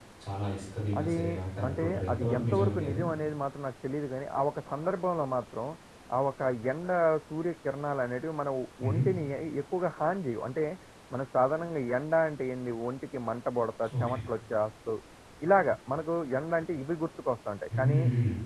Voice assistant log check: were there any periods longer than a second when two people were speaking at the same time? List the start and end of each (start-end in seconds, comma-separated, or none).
1.7-3.0